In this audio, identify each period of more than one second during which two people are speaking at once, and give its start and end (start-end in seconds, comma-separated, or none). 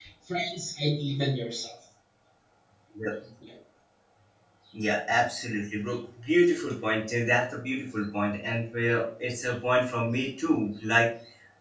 none